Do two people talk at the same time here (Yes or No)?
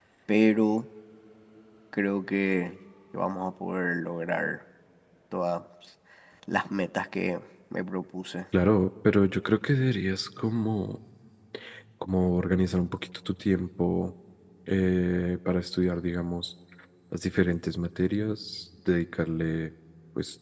No